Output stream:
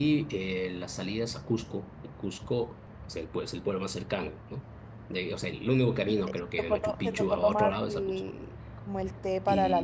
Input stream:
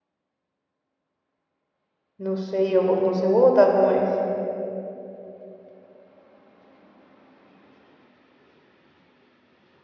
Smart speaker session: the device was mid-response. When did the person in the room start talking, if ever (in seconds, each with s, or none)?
2.2 s